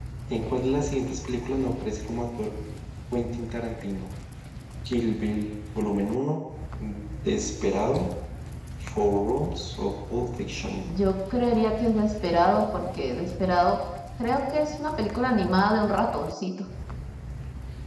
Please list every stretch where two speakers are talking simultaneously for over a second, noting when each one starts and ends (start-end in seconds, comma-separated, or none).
none